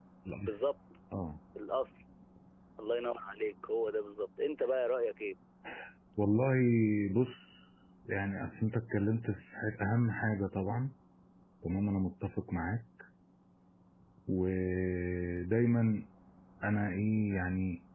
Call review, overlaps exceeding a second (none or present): none